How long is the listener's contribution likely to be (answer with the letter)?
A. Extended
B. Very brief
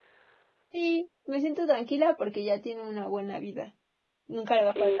B